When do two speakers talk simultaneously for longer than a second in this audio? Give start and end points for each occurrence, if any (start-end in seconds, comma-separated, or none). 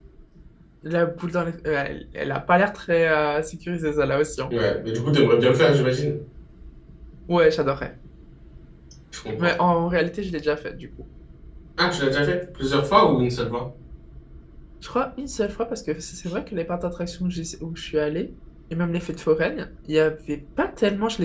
none